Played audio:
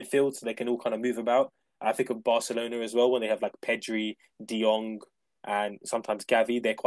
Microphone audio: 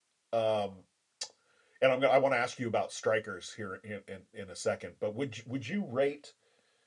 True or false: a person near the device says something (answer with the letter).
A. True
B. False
A